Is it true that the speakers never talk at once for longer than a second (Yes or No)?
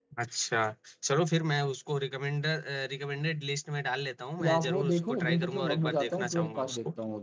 No